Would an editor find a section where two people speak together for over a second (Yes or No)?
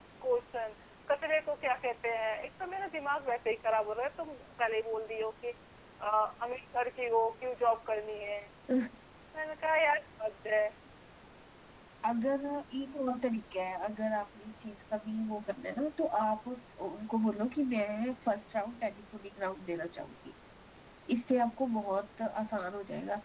No